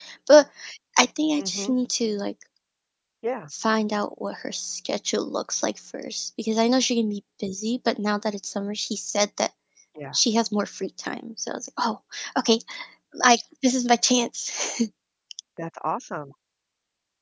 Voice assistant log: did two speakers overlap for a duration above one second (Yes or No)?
No